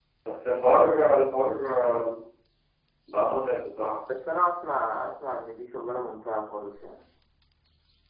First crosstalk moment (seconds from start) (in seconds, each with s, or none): none